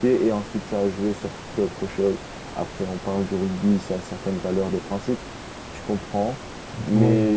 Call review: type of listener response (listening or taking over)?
listening